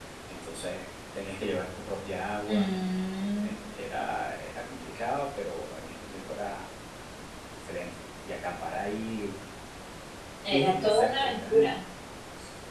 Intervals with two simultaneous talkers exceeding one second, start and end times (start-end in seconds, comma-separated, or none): 10.5-11.7